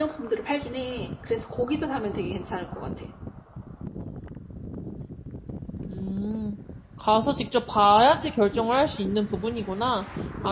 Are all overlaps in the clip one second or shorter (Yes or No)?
Yes